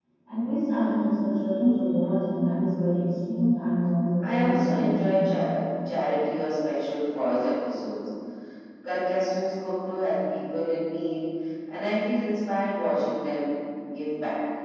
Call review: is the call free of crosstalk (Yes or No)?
No